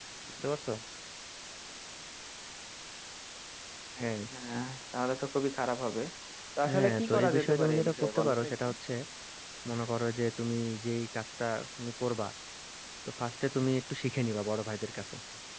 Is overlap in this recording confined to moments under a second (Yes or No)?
No